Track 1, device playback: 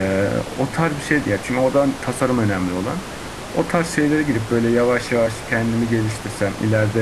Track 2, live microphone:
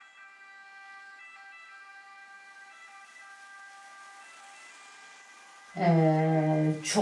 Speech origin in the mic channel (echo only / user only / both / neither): user only